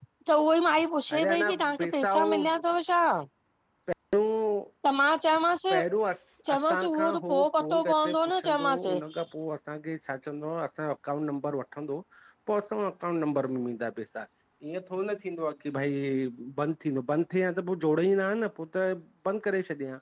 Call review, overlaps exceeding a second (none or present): present